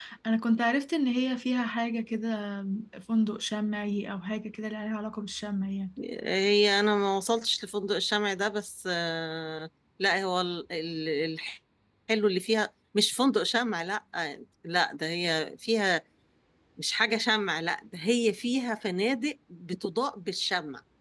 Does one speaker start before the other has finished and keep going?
No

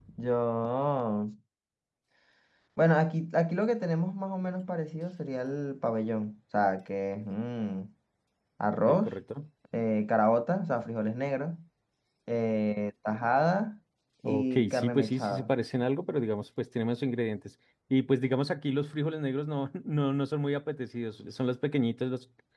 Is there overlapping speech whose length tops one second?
Yes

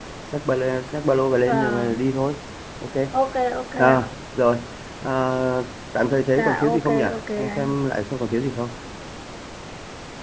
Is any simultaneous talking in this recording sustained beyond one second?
Yes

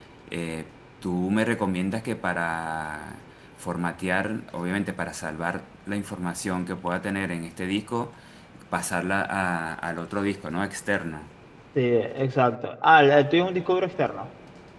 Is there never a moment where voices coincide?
Yes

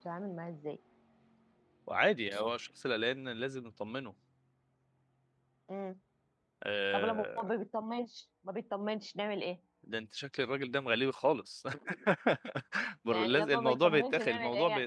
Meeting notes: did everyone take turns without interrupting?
No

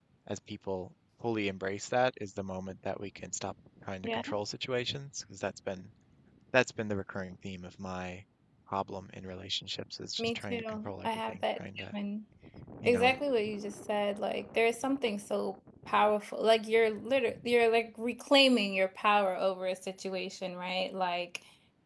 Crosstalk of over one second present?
Yes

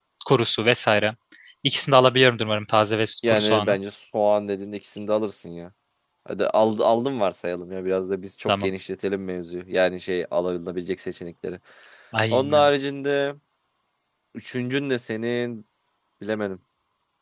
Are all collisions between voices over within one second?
Yes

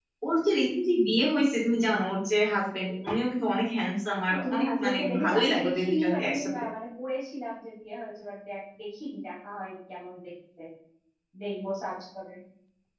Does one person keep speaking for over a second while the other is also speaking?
Yes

